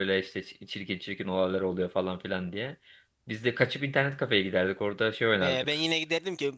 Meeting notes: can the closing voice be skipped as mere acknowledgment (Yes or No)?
No